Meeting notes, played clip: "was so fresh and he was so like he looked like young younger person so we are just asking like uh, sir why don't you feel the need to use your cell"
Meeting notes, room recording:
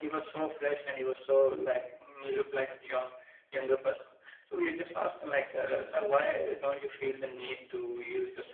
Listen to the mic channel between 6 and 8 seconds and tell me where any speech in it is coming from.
echo only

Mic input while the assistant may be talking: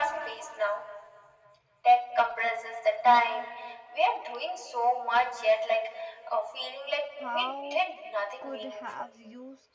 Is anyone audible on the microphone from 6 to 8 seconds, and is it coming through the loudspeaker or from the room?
both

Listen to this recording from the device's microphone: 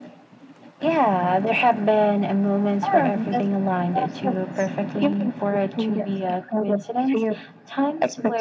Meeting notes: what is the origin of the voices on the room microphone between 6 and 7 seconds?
echo only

